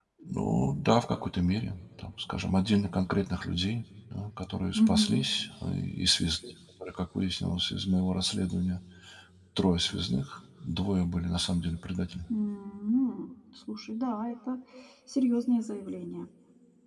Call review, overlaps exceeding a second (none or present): none